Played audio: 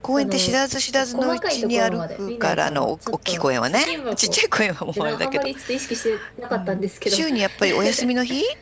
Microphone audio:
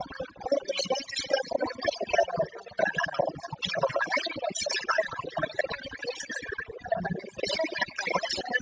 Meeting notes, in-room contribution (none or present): none